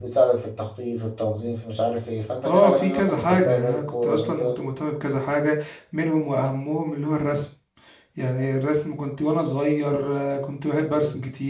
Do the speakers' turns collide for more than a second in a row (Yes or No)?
Yes